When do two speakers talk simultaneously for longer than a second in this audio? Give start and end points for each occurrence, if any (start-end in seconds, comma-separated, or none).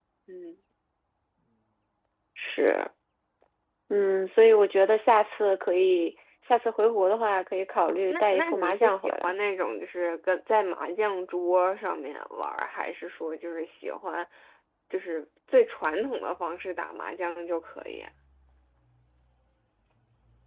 7.9-9.3